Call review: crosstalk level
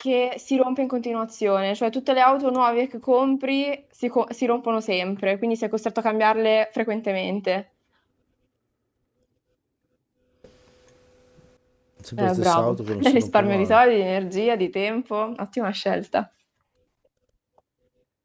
present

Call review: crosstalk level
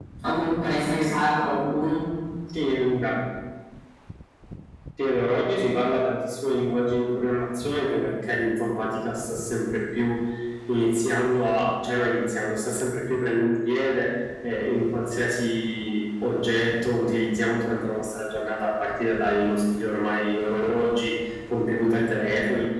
none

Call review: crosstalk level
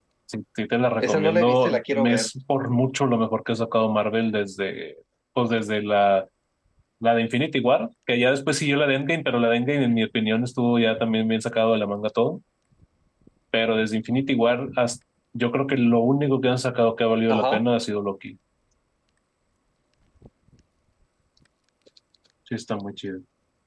present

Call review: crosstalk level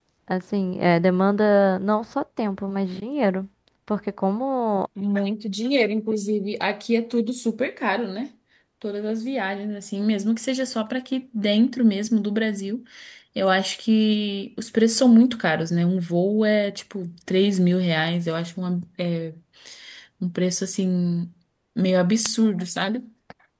none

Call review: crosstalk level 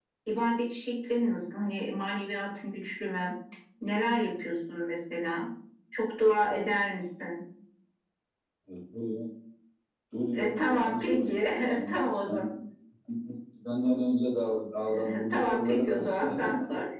present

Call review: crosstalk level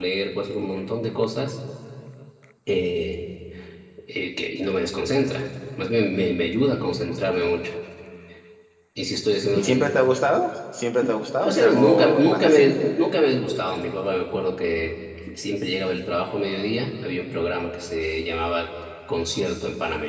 present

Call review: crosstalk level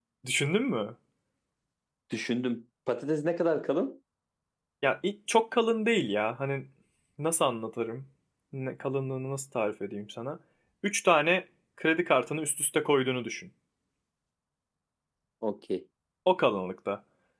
none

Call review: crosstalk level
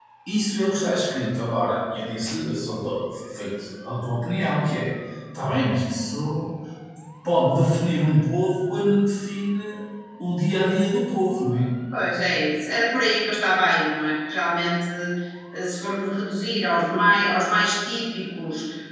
none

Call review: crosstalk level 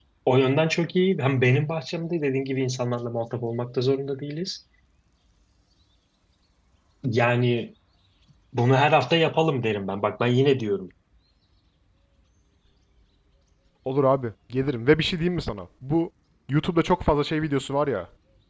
none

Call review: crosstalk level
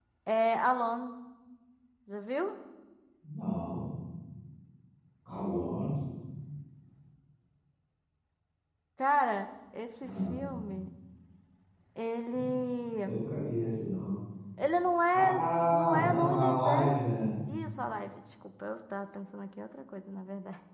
present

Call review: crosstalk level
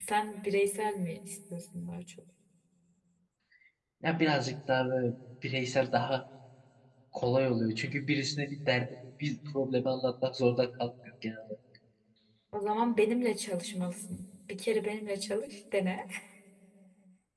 none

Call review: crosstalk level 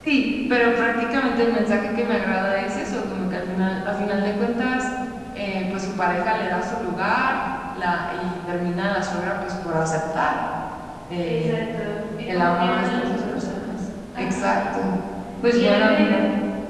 present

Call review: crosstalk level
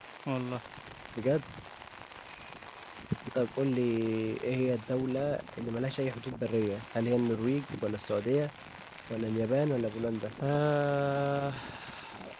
none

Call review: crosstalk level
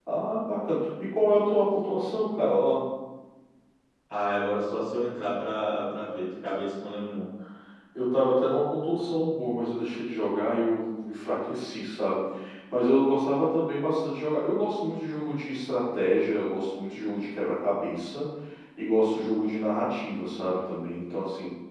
none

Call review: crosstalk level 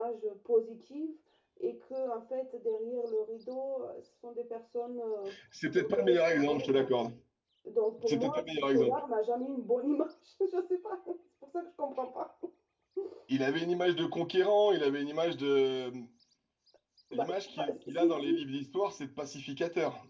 present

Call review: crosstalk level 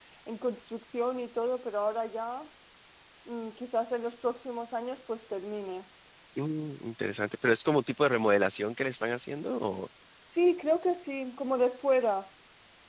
none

